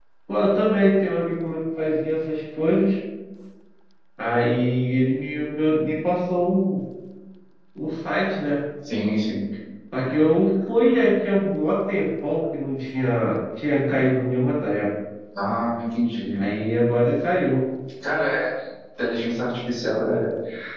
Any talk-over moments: No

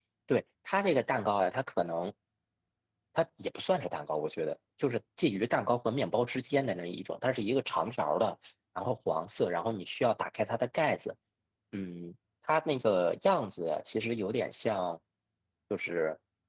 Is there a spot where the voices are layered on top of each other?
No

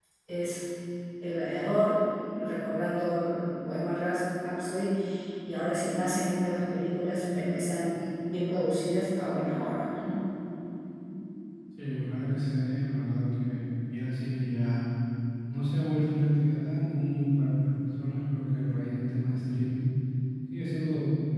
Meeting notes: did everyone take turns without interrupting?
Yes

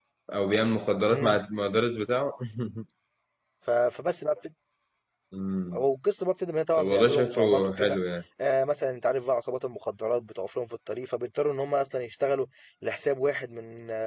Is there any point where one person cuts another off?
Yes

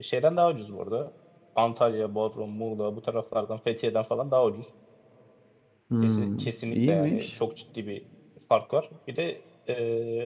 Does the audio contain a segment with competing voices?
Yes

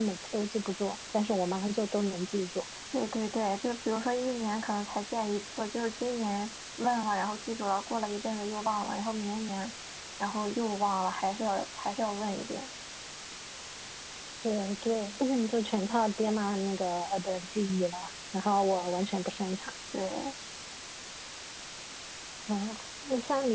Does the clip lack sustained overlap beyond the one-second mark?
Yes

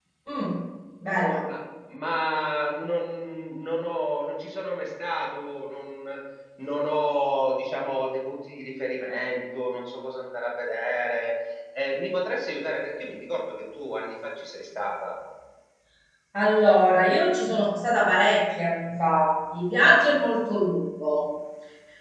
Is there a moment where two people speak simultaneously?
No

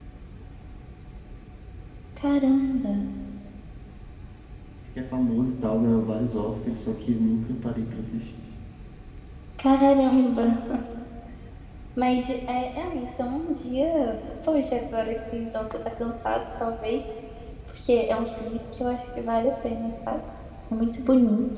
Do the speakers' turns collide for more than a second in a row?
No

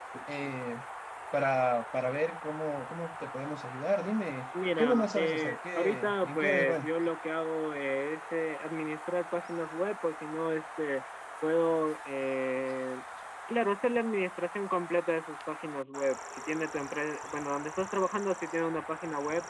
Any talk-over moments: Yes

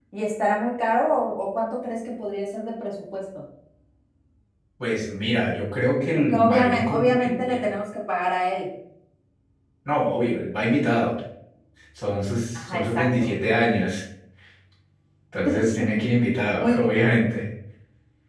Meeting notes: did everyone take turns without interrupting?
No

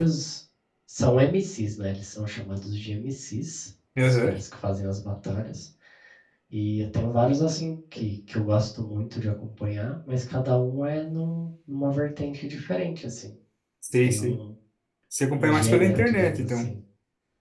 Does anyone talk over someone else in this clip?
Yes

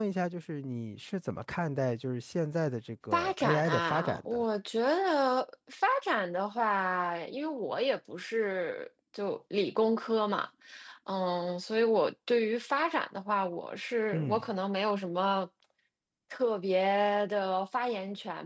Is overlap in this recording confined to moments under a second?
No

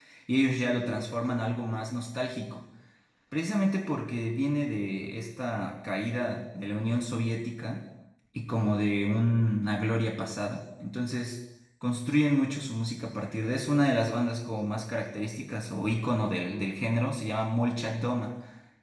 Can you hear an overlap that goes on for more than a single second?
No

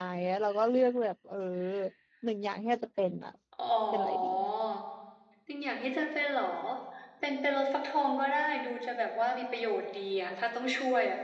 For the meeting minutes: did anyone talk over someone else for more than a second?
No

